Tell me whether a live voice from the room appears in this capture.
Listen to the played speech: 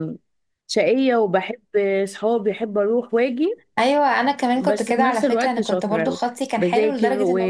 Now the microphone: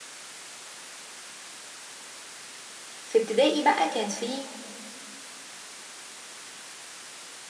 Yes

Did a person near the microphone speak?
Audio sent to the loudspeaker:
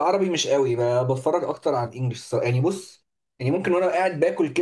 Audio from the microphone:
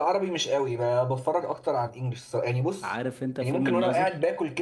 Yes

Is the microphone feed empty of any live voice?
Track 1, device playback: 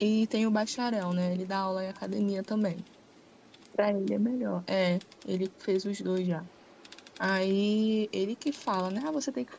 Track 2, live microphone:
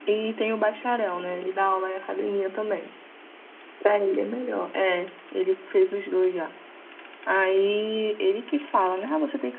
Yes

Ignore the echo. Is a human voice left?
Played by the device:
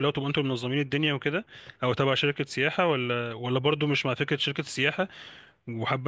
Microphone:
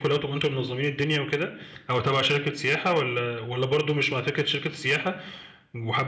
No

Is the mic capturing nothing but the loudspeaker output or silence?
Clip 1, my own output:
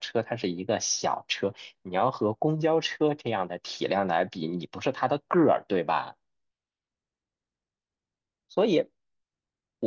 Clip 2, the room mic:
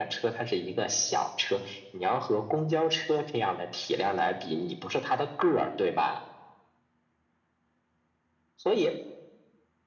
Yes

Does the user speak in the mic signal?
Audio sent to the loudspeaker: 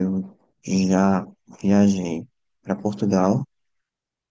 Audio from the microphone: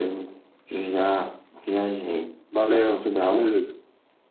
Yes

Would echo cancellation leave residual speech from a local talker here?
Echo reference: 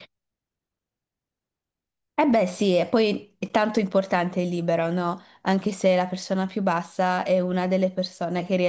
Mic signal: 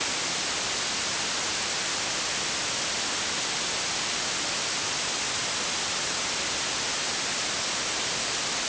No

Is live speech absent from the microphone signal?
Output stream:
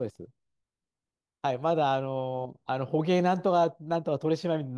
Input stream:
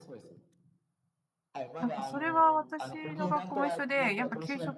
No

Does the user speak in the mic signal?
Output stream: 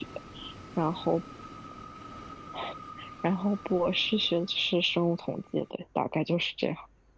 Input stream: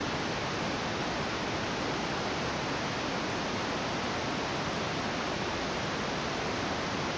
No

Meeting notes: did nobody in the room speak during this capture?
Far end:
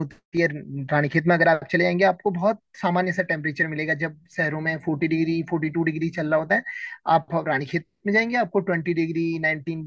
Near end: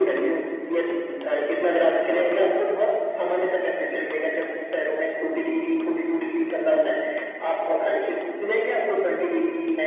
Yes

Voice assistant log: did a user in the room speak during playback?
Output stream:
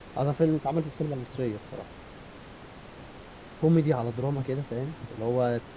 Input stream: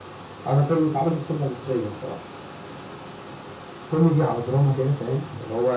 No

